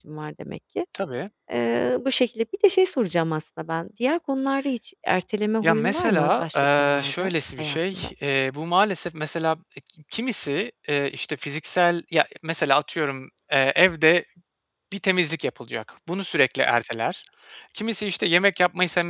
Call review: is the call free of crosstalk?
No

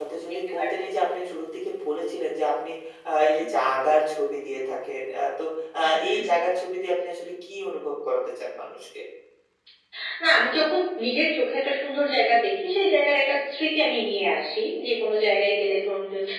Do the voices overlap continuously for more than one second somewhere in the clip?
No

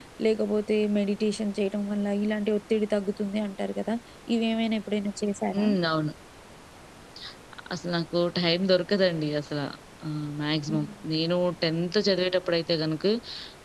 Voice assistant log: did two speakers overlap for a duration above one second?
No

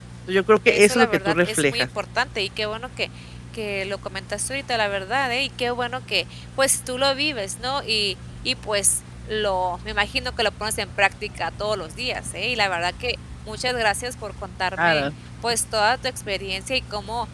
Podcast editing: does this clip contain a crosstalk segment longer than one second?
Yes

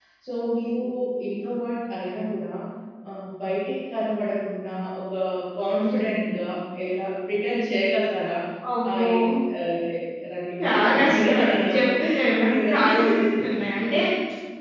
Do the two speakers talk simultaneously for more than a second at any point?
Yes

